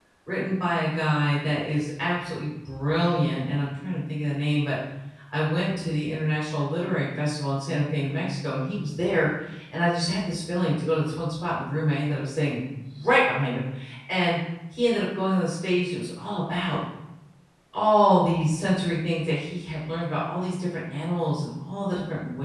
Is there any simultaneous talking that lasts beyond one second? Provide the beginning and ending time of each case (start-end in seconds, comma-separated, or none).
none